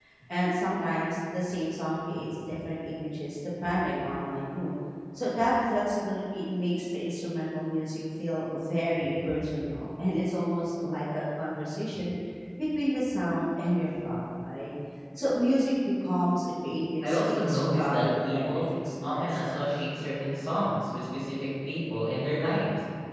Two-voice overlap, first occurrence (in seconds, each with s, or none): 17.0 s